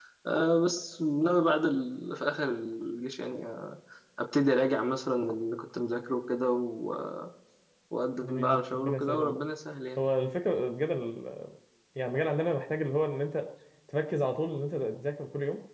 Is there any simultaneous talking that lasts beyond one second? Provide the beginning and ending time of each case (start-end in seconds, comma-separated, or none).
8.2-9.4